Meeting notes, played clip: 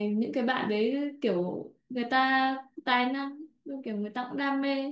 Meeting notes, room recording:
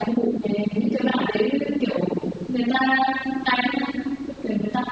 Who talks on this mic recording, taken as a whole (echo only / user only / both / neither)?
echo only